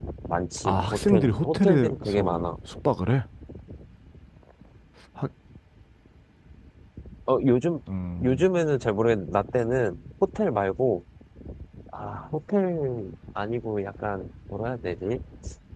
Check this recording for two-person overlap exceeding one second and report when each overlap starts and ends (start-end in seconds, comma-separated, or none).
0.6-2.4